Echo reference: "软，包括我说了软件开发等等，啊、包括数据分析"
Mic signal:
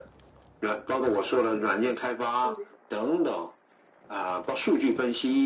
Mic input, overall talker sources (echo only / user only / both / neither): both